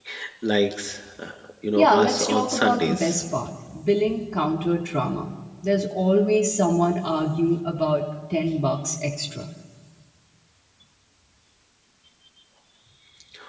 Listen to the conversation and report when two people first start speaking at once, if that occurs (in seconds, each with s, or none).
1.8 s